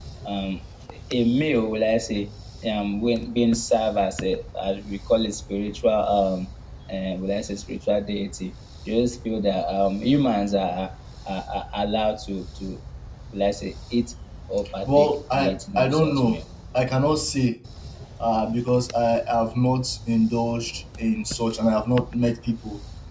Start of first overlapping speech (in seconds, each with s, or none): 14.8 s